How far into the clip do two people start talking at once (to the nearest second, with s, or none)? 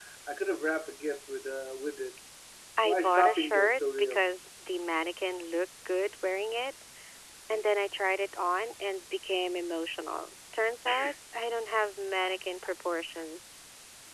3 s